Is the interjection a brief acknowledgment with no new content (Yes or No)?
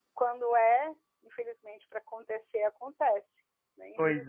No